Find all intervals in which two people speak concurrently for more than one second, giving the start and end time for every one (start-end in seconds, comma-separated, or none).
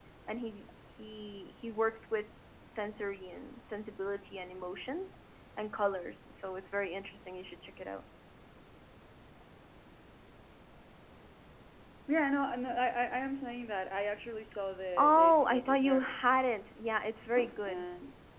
15.0-16.2